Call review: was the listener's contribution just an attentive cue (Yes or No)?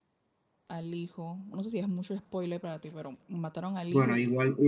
No